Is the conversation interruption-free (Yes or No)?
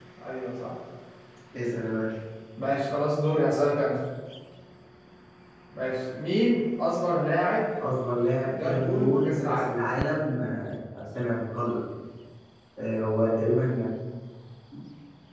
No